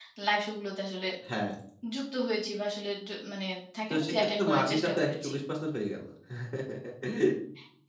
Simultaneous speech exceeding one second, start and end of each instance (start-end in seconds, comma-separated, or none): 3.9-5.3